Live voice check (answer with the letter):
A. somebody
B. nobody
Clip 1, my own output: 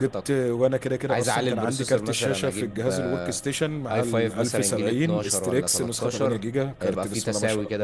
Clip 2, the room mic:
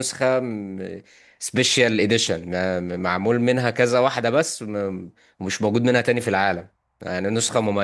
A